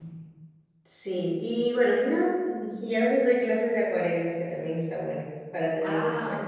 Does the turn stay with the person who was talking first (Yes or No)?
No